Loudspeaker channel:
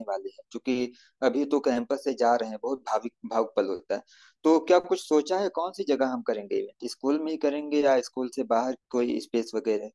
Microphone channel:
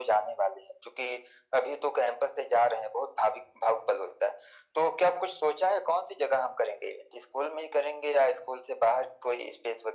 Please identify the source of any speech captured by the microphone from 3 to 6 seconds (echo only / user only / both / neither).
echo only